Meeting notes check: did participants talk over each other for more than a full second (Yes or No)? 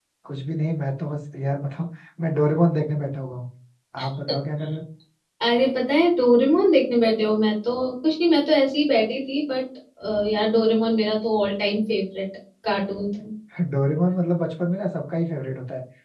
No